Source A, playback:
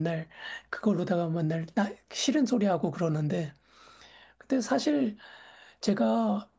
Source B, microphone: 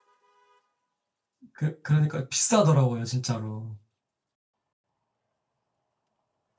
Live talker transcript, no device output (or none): 그, 그러니까 비싸더라고요, 진짜로.